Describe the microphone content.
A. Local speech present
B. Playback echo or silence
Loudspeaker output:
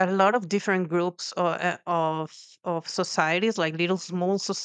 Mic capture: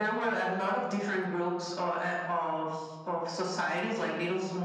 B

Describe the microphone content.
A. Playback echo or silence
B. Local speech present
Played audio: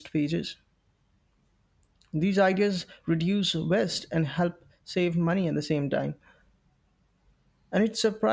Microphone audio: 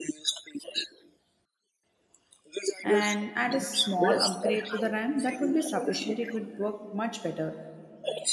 B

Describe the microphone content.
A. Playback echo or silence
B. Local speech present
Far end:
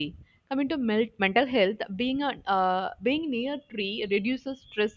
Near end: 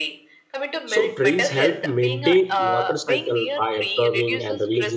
B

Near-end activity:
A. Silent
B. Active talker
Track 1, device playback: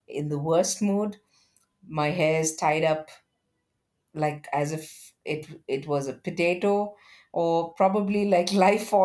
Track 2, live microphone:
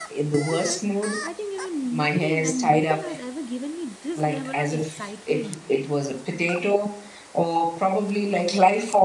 B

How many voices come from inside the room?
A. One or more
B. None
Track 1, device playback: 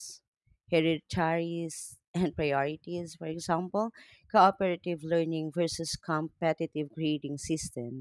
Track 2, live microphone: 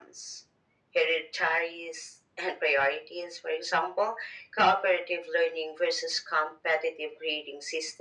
B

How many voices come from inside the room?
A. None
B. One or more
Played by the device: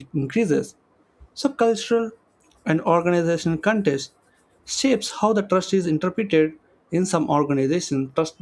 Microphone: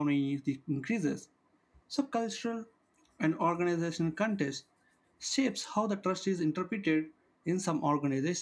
A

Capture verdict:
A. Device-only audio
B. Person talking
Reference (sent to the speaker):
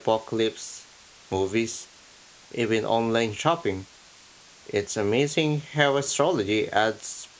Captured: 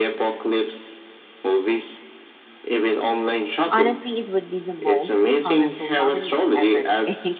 B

